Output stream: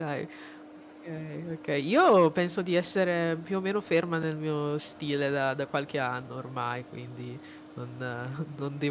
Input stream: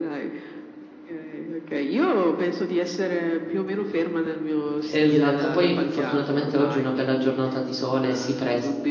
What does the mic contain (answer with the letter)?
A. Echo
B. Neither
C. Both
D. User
C